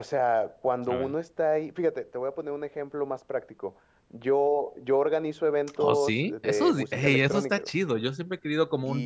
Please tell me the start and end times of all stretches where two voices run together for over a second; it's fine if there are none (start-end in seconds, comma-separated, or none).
5.8-7.7